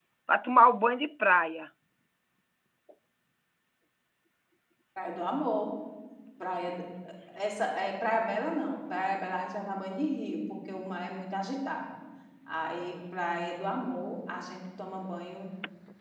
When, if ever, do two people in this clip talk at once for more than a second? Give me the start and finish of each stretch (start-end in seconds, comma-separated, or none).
none